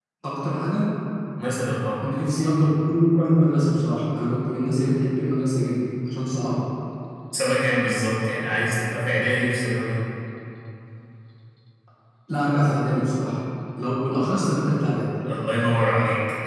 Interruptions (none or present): none